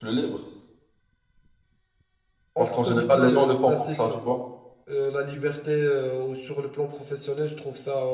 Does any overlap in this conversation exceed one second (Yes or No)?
Yes